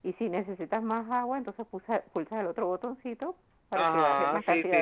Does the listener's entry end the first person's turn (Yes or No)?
Yes